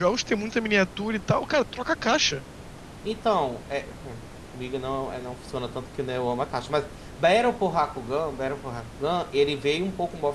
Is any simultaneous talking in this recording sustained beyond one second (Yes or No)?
No